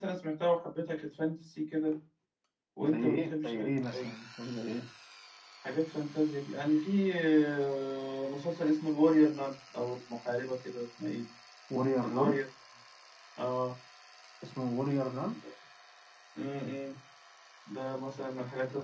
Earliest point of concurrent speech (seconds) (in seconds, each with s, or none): 2.8 s